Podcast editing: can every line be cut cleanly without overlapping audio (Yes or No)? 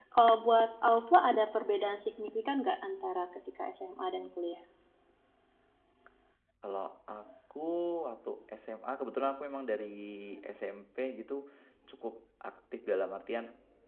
Yes